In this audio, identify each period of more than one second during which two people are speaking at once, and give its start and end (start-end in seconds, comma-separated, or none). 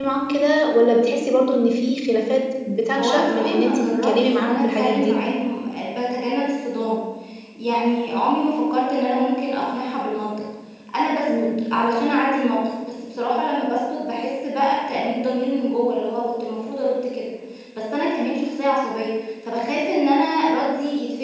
3.0-5.2